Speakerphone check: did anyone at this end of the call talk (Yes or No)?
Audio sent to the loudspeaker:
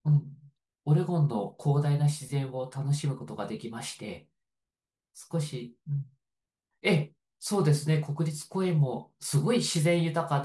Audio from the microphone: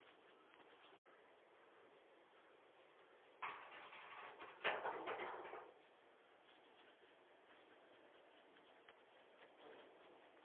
No